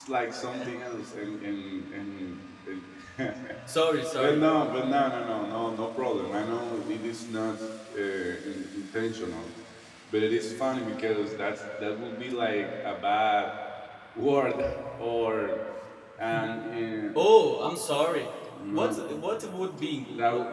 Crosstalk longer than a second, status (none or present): none